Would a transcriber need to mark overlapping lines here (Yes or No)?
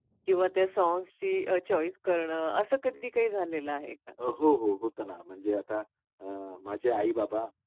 No